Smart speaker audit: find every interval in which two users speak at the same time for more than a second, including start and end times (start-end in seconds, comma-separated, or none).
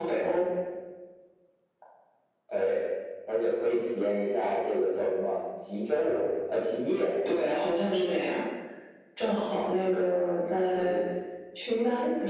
none